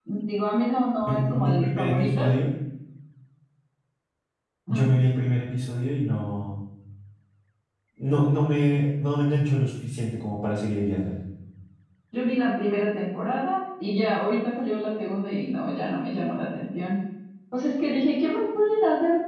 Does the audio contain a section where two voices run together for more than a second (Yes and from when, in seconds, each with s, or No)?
Yes, from 1.0 s